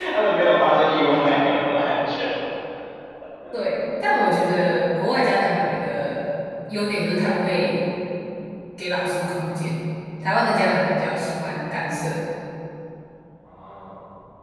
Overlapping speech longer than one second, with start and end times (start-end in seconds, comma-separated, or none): none